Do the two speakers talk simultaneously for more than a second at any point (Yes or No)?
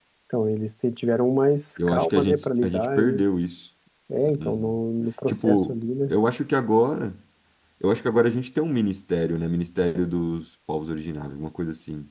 Yes